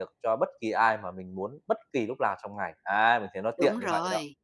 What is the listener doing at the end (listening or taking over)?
taking over